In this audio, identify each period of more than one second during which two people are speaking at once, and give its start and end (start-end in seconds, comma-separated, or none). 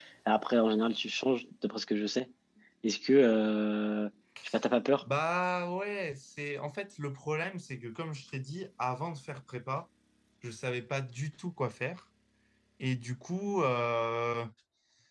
none